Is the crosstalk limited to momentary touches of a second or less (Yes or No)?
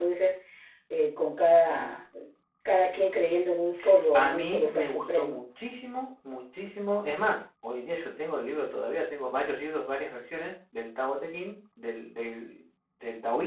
No